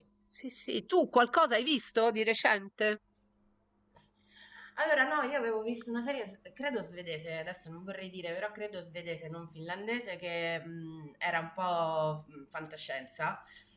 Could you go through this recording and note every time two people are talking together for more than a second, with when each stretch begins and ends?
none

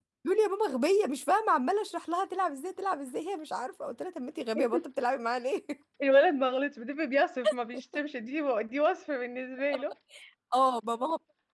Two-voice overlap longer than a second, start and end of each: none

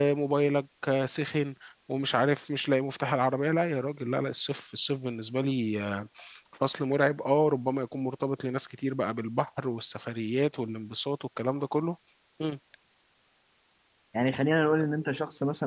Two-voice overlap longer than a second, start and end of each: none

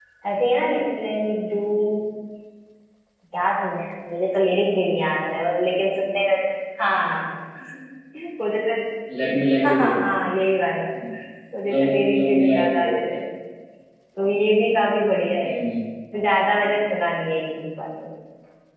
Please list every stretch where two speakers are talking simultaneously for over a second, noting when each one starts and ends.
11.7-12.9

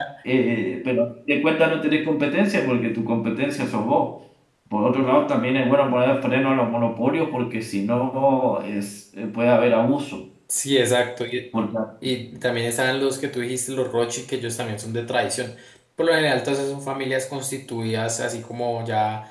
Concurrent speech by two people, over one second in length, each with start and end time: none

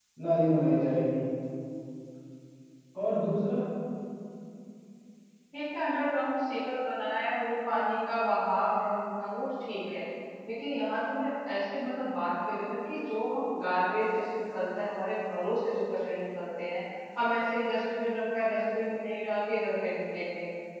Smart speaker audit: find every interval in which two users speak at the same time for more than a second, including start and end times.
none

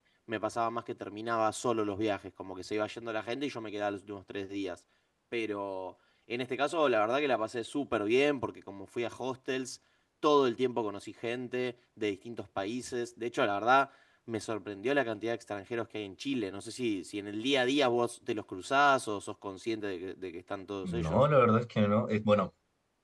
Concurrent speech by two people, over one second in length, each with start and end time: none

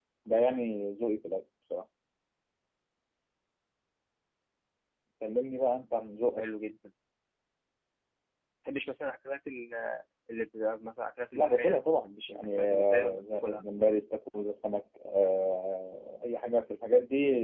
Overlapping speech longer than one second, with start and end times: 11.4-13.6

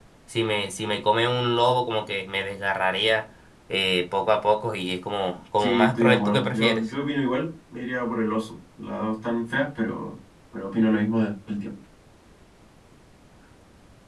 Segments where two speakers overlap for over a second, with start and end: 5.6-6.8

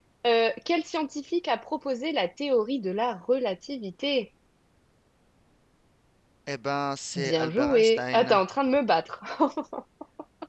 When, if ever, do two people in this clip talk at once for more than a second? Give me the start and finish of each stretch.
7.2-8.4

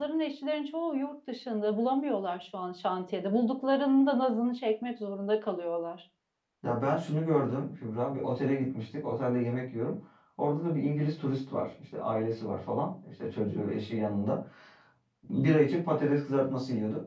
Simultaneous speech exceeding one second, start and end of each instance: none

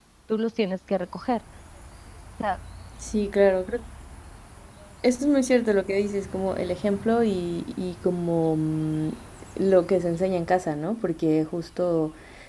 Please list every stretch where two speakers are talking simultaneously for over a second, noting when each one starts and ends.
none

